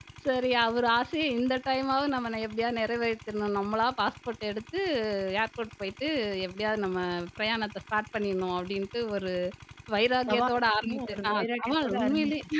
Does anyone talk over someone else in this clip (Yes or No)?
Yes